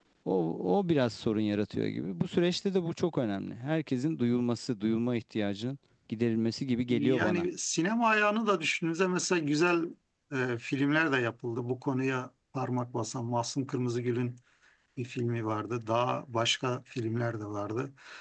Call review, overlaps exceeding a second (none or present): none